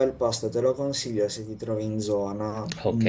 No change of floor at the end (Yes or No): No